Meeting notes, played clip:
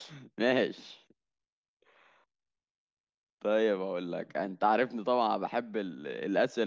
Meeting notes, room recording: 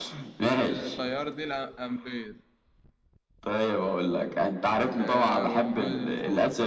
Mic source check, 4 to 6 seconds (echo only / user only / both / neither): both